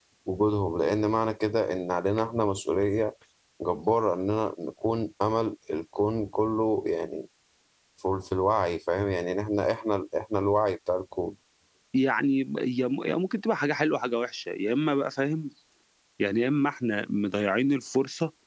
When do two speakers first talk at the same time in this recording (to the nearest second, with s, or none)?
none